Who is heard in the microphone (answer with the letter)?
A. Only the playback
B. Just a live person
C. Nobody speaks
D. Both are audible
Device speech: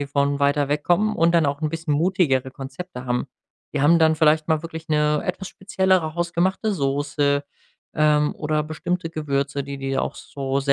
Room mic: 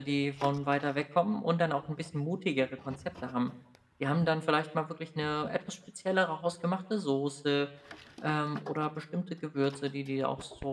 A